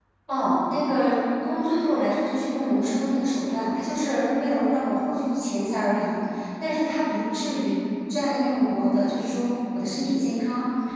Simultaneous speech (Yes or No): No